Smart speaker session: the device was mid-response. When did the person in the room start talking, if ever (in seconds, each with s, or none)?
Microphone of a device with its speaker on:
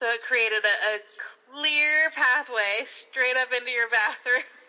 none